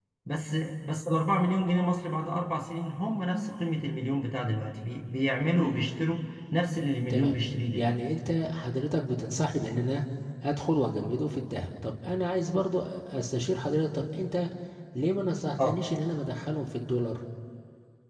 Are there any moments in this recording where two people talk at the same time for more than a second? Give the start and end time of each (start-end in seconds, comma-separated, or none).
none